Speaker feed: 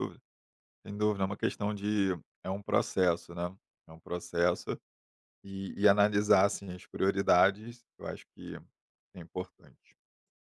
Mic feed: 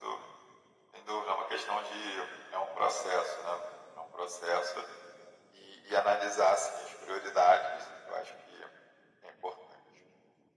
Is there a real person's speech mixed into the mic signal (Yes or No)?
No